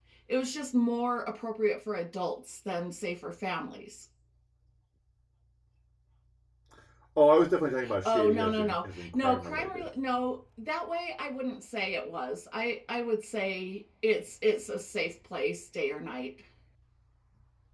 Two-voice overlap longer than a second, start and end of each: 8.0-9.9

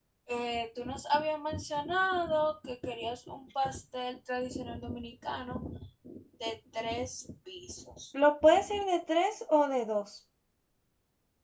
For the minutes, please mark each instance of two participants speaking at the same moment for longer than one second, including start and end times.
none

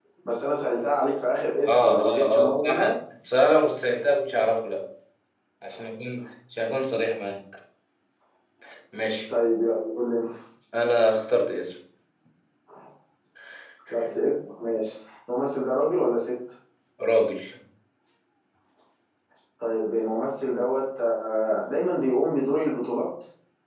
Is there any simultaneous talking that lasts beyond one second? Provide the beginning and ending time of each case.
1.7-2.9

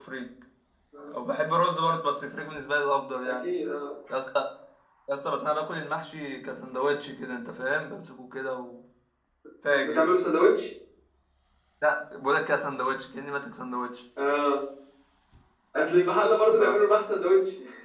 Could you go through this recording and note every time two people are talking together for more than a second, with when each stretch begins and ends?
none

